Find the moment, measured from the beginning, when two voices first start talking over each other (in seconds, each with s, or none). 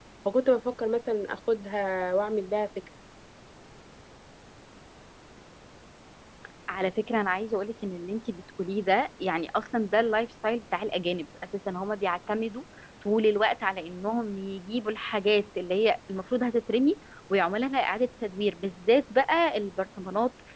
none